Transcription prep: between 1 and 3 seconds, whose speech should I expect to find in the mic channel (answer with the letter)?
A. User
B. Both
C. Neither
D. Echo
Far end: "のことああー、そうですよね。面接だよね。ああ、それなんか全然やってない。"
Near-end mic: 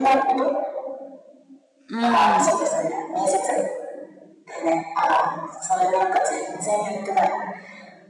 B